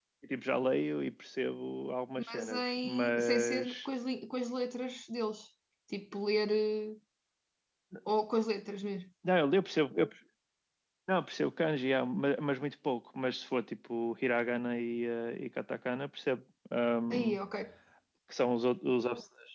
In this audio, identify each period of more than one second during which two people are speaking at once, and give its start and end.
2.2-3.9

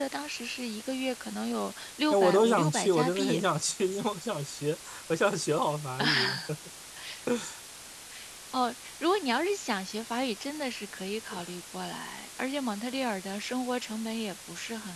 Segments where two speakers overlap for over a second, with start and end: 2.1-3.4

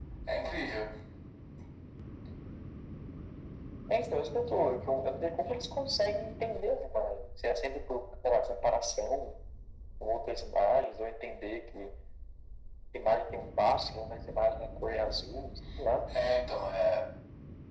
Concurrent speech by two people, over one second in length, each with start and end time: none

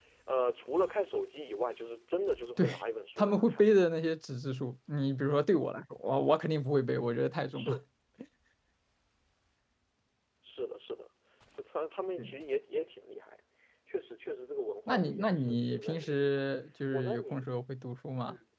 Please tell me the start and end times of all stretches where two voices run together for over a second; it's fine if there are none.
14.9-16.3

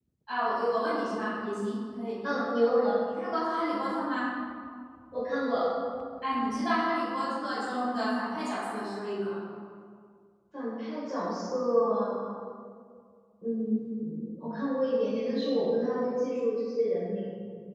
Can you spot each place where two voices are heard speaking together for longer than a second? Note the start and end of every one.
none

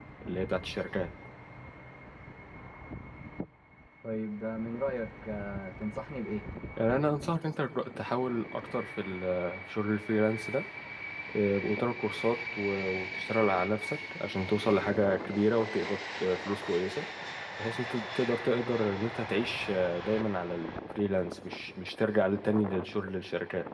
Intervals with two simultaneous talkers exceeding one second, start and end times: none

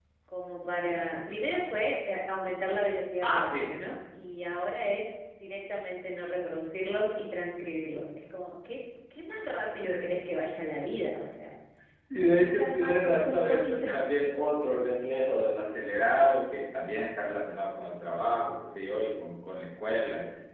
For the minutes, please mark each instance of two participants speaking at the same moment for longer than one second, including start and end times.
12.2-13.8

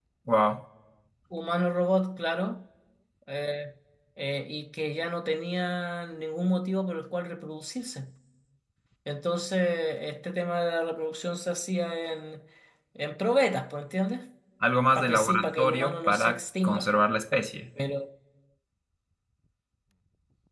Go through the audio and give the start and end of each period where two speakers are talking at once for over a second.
14.9-16.9

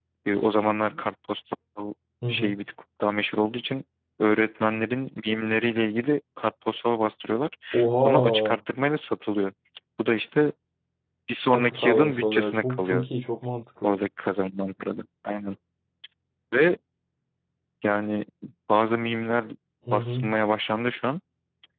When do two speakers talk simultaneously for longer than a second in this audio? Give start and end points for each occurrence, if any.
11.5-13.1

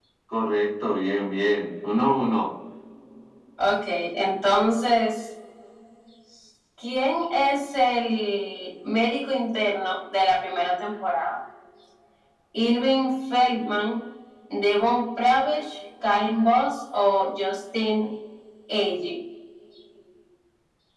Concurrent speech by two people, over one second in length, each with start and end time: none

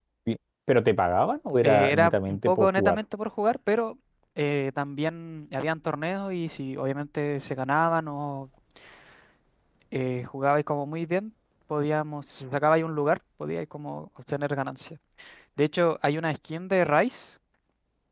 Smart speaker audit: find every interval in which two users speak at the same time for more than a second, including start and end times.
1.6-3.0

